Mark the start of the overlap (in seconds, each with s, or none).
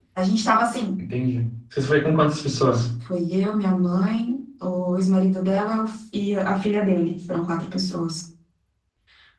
none